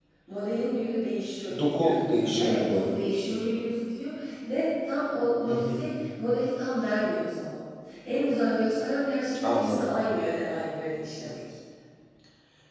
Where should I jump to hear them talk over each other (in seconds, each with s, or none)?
1.6 s